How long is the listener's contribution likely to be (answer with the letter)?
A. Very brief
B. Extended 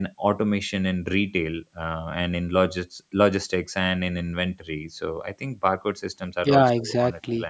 B